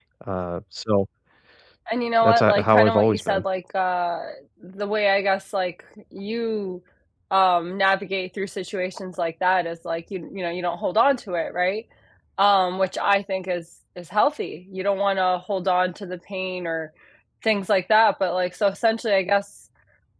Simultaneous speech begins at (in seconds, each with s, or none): 2.2 s